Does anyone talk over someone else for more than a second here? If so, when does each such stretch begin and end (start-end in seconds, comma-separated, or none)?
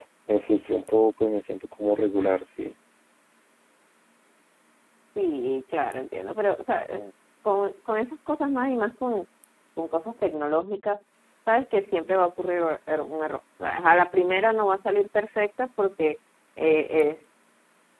none